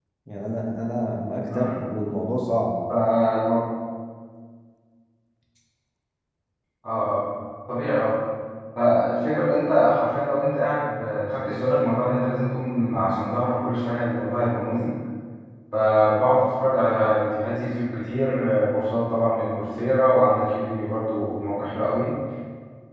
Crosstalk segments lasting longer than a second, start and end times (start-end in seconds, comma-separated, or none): none